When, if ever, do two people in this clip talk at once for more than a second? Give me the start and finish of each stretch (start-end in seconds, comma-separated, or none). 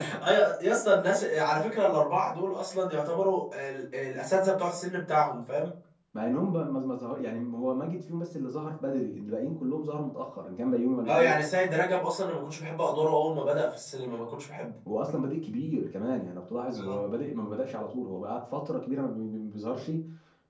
none